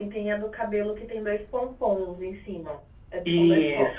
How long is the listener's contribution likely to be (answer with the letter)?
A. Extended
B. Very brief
A